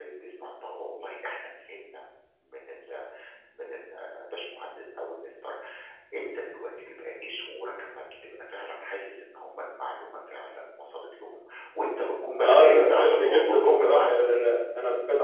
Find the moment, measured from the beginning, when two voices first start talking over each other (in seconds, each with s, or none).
12.4 s